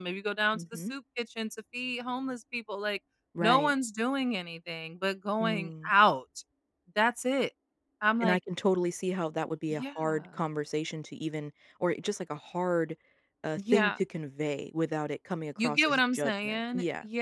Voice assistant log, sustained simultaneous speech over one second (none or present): present